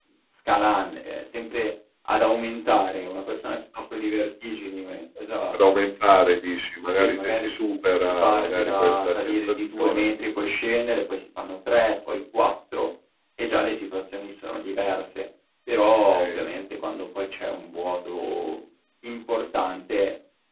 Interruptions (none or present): present